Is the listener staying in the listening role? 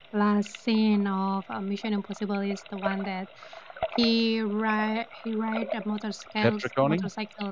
Yes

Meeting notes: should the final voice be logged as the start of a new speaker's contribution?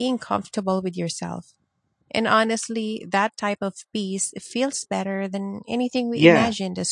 Yes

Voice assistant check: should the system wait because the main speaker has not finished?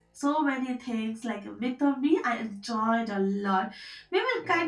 Yes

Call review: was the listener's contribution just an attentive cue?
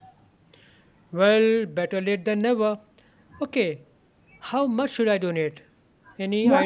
No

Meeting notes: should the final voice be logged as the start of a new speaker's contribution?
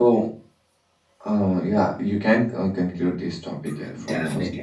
Yes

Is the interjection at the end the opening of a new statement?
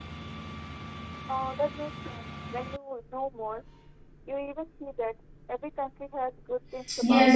Yes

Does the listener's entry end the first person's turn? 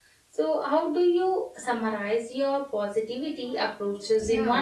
Yes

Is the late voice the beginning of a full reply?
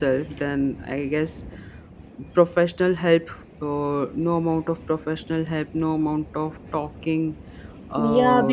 Yes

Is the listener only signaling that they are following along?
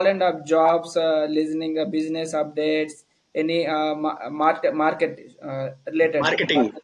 No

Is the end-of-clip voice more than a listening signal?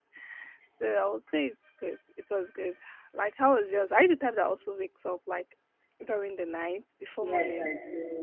Yes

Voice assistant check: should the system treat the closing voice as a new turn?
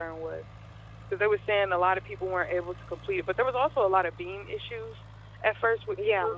No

